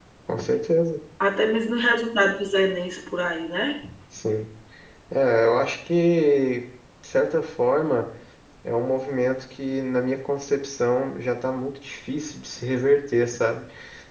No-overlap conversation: Yes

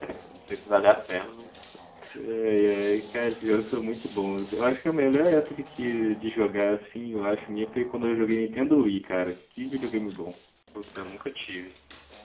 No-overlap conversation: Yes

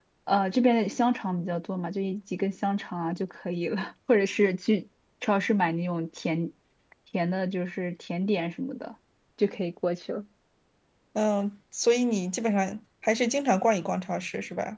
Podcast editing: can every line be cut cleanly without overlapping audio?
Yes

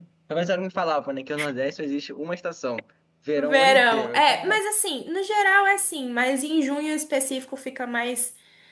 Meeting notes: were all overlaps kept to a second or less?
No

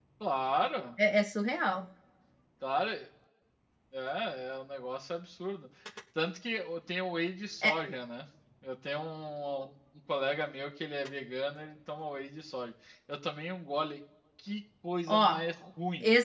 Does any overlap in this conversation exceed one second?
No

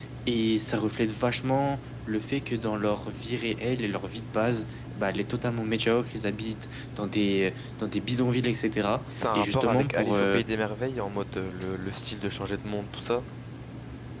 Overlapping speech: Yes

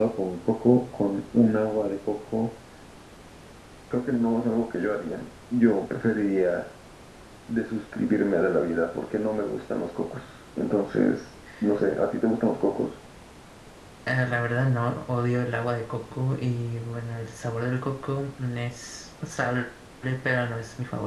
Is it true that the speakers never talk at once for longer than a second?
Yes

